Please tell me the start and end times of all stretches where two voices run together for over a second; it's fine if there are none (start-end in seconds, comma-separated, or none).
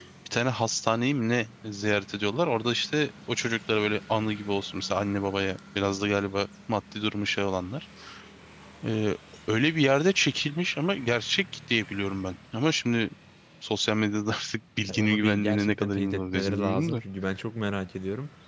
14.9-17.0